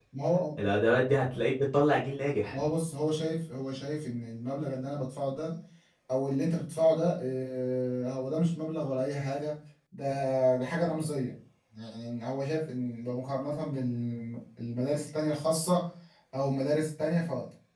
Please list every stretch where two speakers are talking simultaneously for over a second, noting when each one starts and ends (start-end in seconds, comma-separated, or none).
none